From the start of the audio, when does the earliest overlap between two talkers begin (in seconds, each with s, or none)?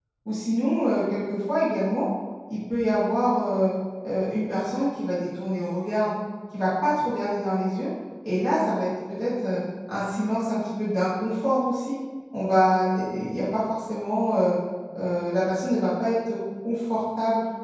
none